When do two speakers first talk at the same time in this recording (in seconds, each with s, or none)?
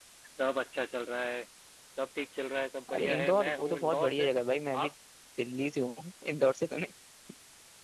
2.9 s